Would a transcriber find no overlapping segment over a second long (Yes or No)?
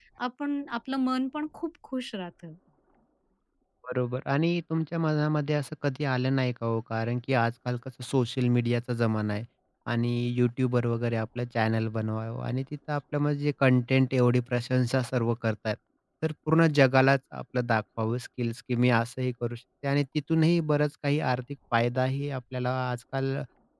Yes